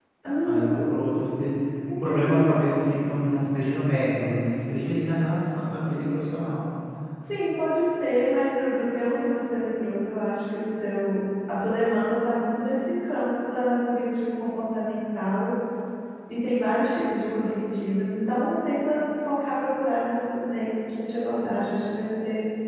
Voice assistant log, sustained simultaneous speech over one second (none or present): none